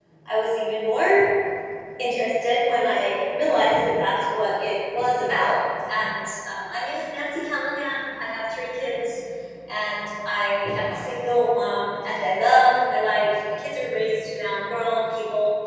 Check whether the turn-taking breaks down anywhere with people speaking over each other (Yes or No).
No